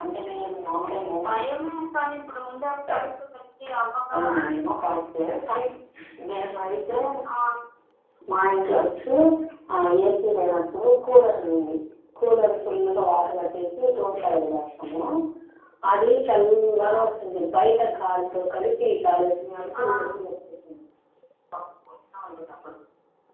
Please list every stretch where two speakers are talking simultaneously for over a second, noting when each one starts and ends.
none

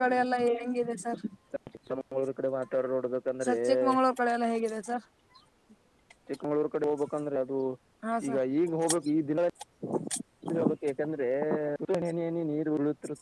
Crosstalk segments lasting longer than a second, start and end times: none

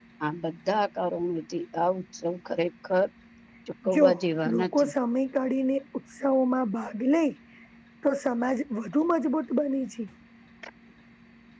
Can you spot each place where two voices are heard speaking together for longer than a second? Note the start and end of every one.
none

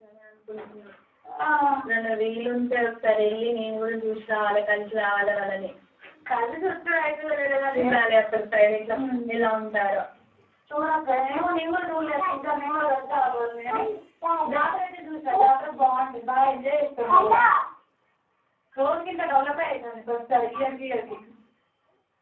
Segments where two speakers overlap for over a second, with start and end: none

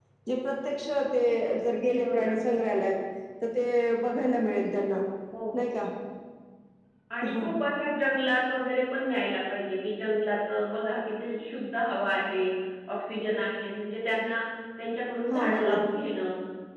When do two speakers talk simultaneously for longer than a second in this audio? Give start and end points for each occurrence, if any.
none

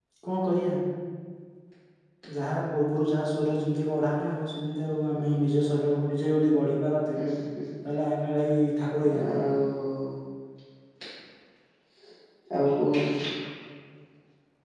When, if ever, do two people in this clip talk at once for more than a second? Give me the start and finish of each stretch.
none

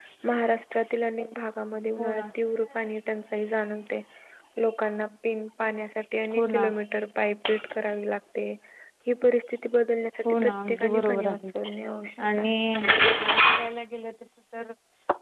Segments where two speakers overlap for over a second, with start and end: 10.2-11.5

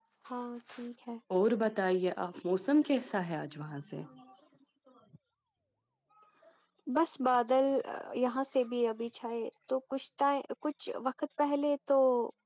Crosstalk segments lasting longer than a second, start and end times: none

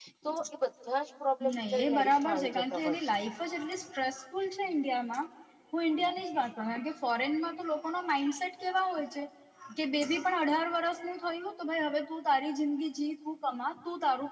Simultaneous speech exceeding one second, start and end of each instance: 1.5-3.1

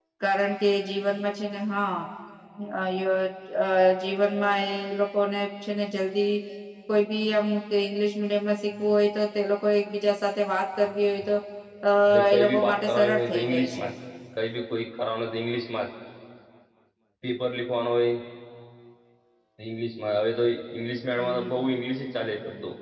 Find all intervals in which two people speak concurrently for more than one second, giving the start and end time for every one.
12.3-13.8

